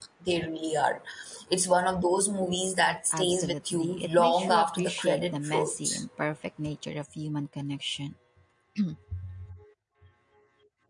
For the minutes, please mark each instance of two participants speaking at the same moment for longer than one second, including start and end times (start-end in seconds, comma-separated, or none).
3.1-6.0